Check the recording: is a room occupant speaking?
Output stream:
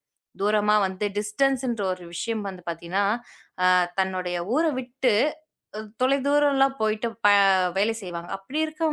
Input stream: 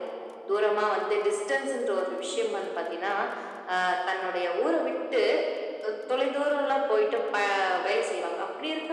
No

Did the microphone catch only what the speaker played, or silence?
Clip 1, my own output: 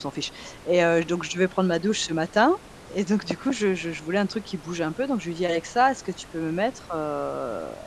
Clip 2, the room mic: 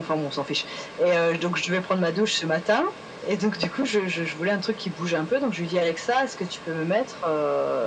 Yes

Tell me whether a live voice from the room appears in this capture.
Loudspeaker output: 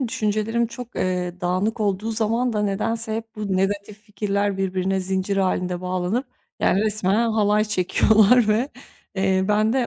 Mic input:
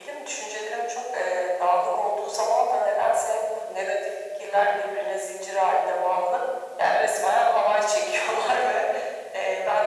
No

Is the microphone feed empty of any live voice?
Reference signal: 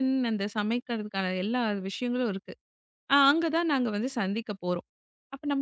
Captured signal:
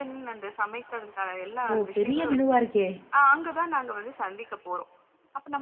No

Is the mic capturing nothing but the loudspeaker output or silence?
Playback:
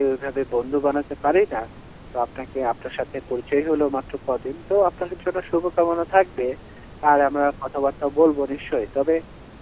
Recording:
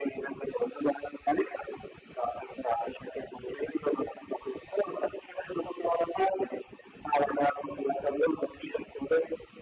Yes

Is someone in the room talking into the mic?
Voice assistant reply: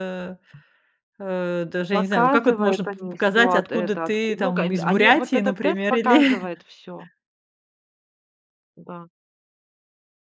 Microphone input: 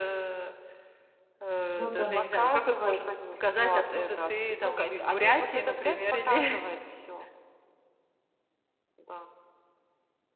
Yes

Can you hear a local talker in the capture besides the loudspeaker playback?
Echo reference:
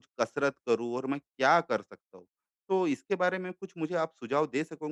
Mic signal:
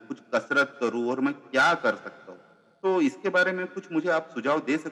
No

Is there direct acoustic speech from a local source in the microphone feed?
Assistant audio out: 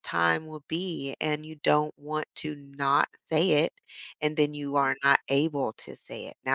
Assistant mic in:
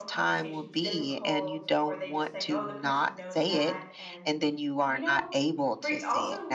Yes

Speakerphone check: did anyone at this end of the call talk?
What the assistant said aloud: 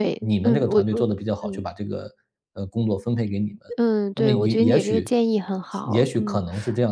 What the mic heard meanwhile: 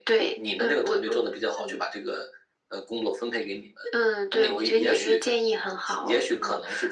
No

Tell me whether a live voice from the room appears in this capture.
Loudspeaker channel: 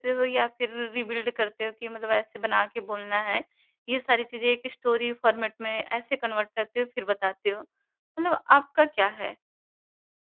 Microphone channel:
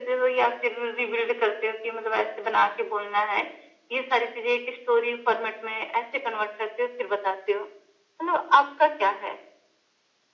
No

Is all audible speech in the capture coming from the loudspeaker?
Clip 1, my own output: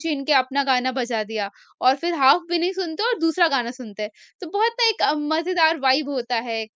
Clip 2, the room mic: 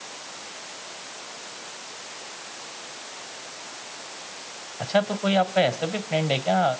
No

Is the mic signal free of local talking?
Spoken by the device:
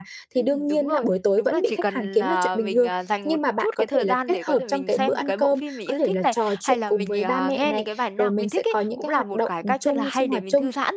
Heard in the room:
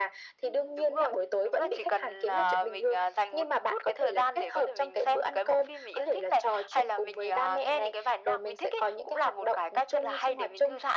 Yes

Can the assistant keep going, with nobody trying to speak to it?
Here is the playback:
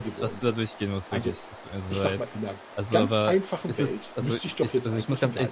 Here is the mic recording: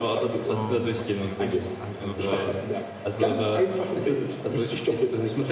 No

